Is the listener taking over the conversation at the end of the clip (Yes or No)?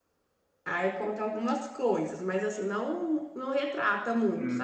Yes